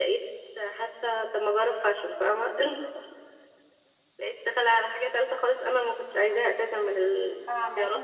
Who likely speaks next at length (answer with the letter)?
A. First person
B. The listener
B